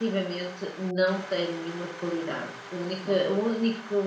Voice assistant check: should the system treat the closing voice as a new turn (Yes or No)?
No